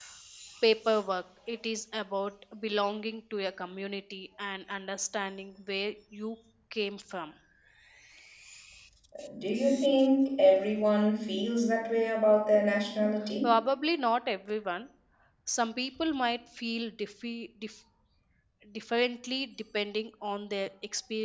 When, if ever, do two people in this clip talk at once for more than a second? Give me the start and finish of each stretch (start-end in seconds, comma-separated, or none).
none